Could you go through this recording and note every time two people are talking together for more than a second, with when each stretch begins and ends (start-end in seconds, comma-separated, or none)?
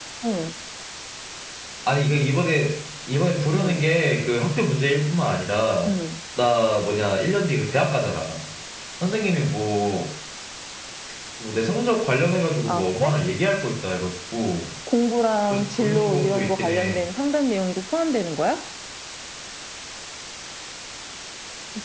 15.5-17.0